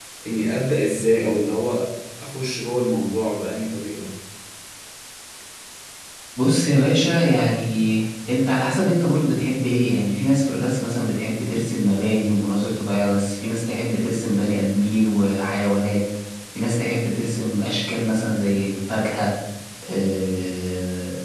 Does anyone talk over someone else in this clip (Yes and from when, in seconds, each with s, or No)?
No